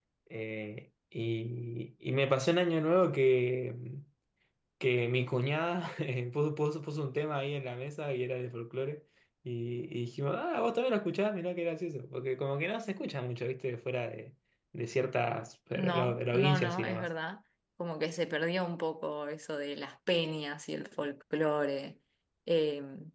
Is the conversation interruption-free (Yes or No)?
No